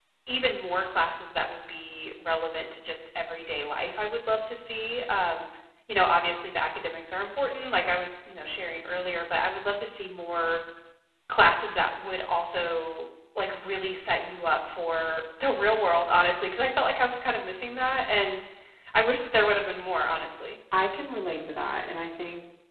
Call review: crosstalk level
none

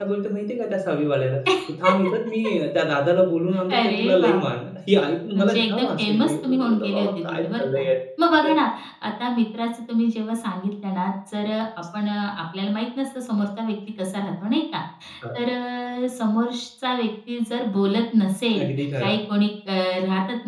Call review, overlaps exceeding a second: present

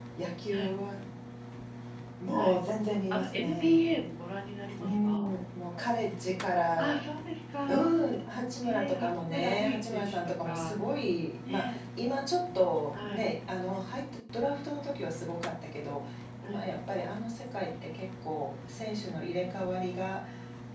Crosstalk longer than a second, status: present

